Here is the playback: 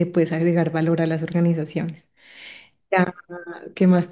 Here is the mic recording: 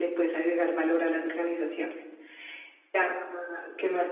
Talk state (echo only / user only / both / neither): echo only